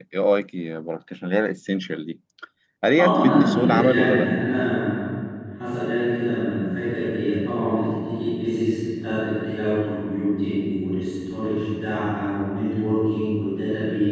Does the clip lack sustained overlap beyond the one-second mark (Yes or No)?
No